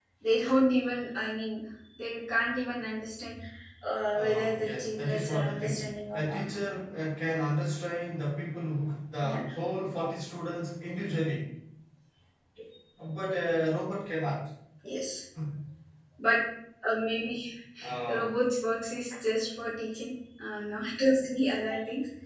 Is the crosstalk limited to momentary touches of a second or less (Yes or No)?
No